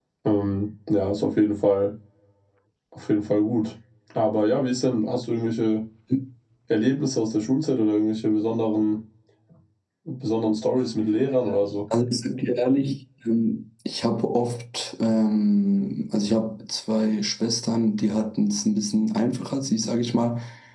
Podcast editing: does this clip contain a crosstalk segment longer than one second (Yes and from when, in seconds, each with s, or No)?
No